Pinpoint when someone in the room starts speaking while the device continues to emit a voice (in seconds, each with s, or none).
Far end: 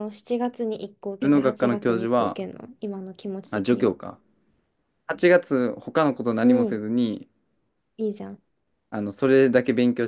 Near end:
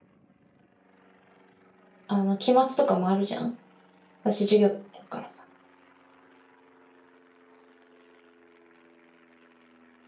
2.1 s